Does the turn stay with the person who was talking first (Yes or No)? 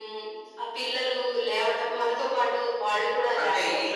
No